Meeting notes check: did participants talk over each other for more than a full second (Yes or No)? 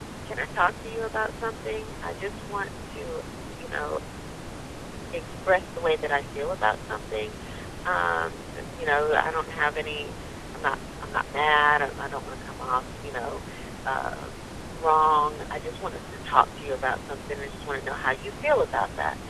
No